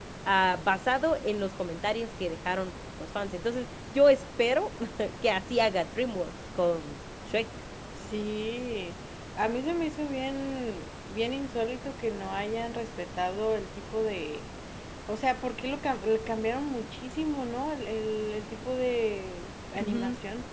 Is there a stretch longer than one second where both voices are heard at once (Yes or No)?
No